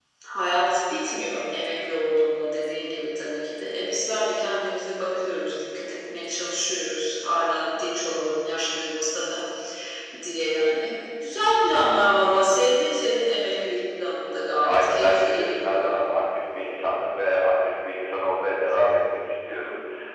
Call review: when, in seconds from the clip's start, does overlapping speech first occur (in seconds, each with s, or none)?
14.6 s